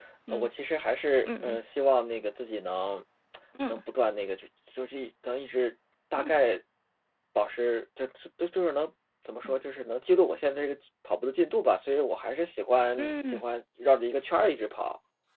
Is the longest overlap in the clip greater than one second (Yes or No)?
No